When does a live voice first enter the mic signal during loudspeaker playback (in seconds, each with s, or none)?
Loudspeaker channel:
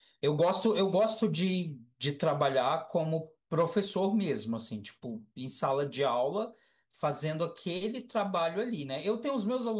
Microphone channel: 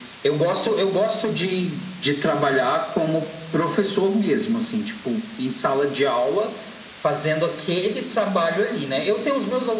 none